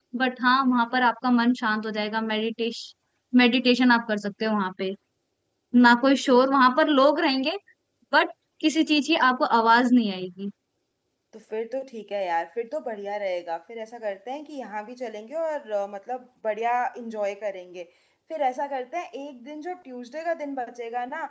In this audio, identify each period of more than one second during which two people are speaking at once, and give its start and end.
none

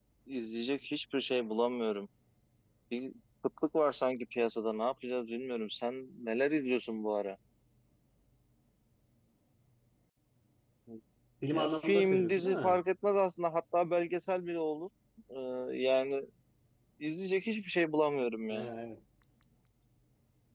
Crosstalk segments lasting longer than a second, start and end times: 11.5-12.8

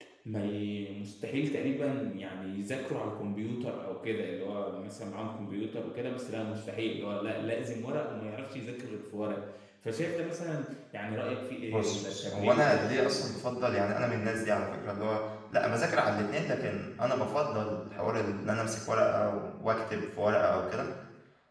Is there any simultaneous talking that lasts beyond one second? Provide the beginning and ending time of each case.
11.7-13.3

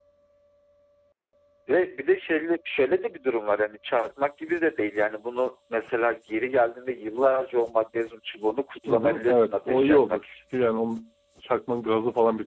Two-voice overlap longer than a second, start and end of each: 8.9-10.2

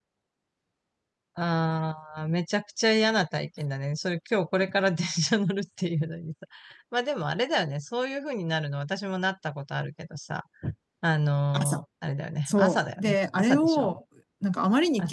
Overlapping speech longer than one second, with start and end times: 12.4-13.9

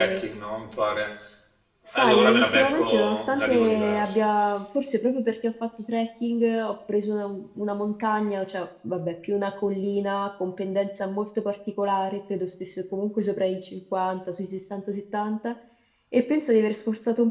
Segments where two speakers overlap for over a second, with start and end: 1.9-4.2

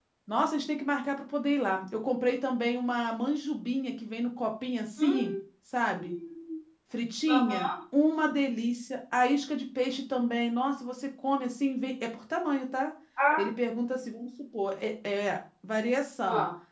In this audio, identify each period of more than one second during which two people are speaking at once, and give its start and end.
none

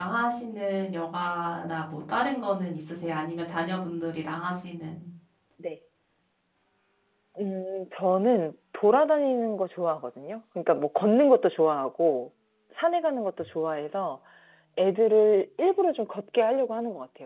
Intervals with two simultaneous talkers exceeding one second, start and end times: none

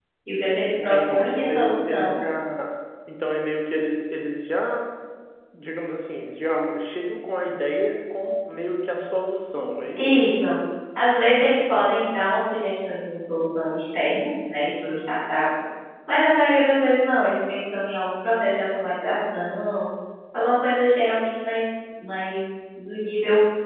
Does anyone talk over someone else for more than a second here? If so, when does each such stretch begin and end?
0.8-2.2

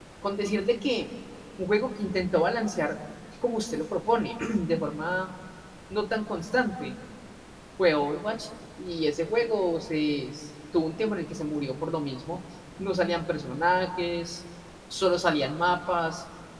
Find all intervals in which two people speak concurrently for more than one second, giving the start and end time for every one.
none

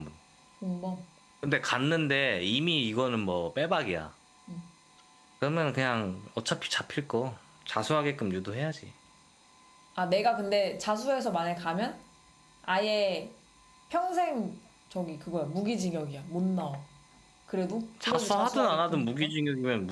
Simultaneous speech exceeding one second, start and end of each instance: 18.1-19.3

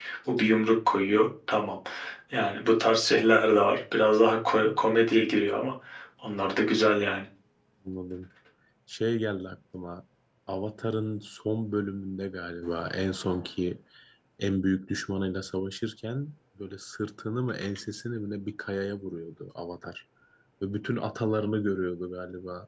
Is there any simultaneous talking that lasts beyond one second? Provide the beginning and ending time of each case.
none

